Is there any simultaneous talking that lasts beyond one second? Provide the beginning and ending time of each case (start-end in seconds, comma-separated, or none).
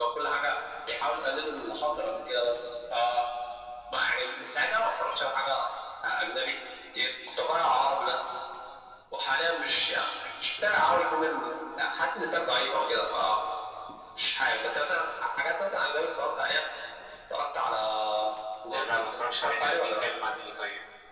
18.6-20.0